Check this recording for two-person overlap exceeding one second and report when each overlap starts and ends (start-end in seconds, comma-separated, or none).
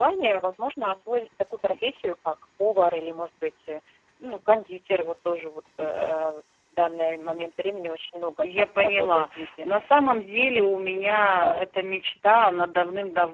8.4-9.7